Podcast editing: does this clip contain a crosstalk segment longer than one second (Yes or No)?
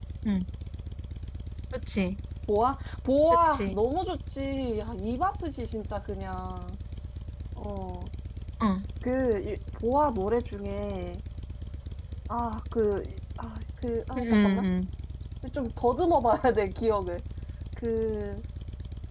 No